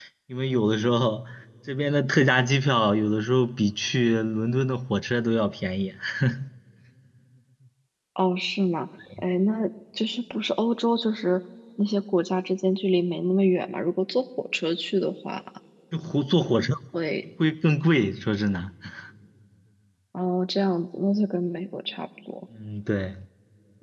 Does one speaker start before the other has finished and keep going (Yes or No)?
No